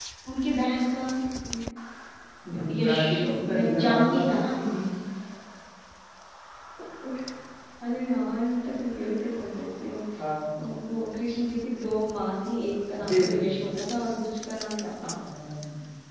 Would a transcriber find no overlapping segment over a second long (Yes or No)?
No